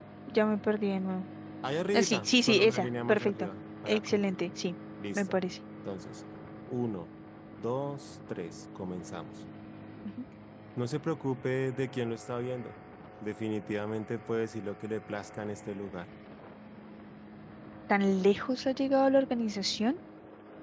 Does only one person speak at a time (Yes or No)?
No